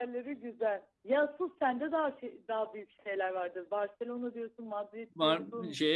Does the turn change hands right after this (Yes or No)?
Yes